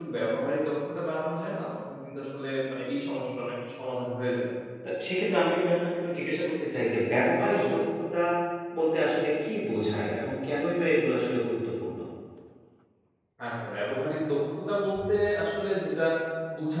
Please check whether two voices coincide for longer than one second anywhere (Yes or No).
No